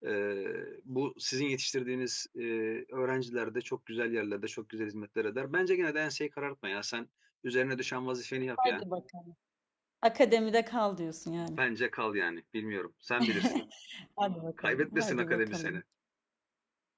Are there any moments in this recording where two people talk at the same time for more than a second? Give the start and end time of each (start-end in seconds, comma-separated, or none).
14.6-15.8